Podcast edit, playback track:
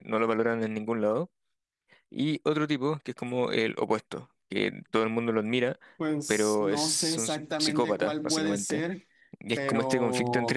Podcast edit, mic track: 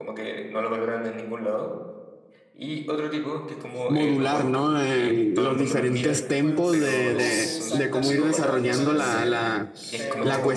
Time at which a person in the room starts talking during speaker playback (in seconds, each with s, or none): 3.9 s